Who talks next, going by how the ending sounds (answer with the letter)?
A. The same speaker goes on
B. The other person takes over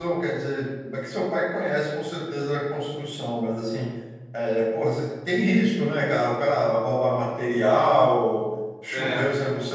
A